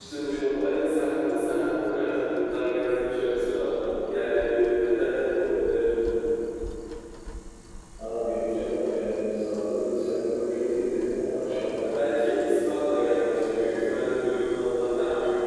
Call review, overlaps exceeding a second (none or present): present